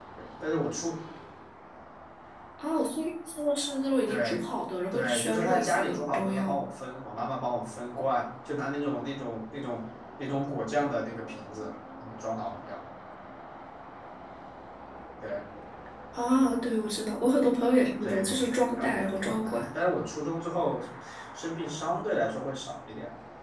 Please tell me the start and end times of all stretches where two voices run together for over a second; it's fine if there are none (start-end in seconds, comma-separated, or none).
4.9-6.5, 18.0-19.6